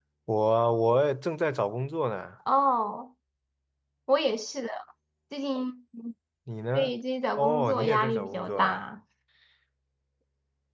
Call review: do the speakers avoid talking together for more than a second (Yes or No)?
No